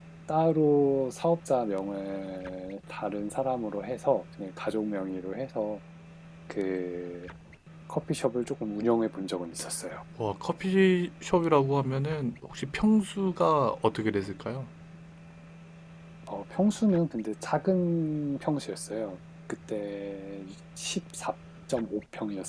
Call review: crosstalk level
none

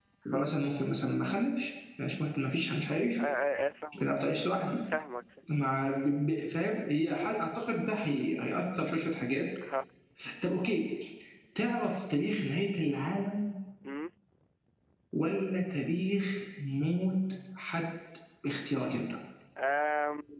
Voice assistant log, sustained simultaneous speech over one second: none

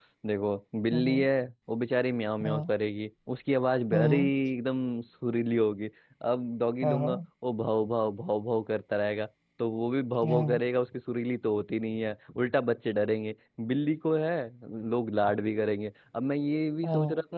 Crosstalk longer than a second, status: none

